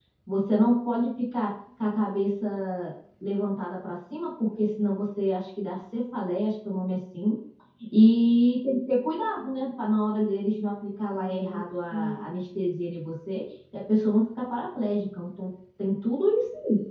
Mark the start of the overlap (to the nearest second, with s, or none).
11 s